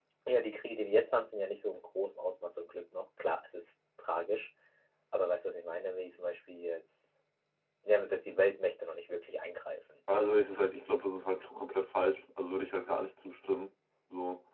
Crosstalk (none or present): none